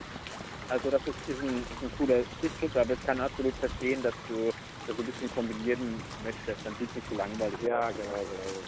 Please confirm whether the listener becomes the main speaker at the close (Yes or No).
Yes